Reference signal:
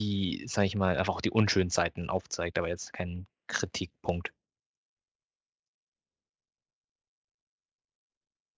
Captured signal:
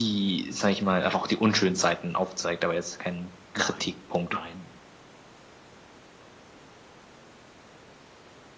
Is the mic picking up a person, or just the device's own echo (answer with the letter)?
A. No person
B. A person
B